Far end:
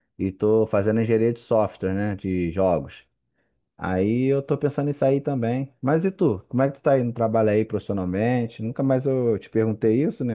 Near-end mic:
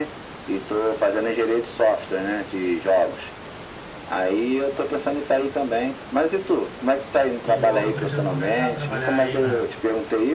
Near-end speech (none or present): present